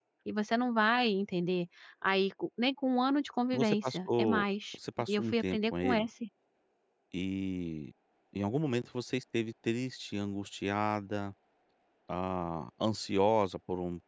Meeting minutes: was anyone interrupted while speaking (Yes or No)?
Yes